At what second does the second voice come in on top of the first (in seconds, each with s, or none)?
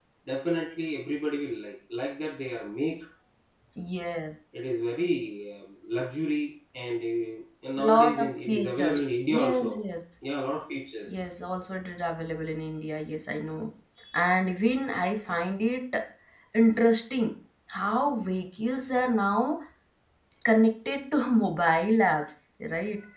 7.8 s